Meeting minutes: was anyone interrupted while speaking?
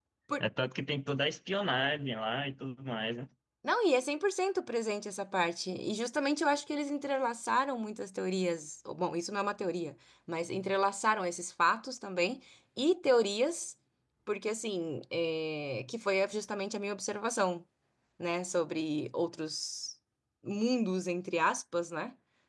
No

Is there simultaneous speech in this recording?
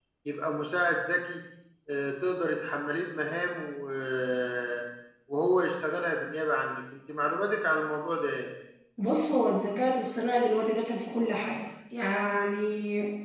No

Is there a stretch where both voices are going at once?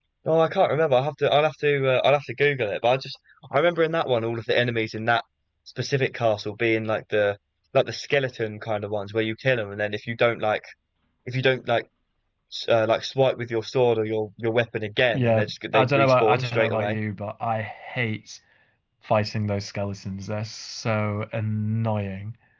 Yes, from 15.1 s

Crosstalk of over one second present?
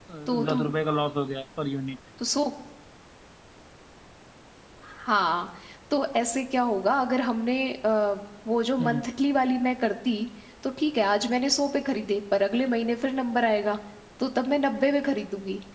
No

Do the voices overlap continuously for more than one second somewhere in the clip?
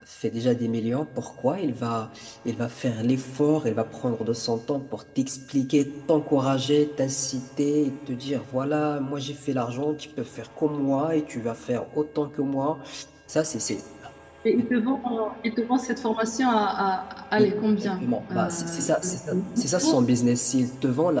Yes, from 17.4 s

